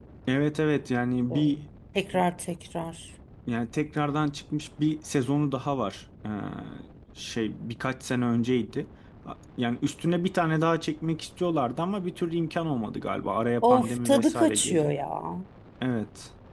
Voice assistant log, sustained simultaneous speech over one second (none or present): present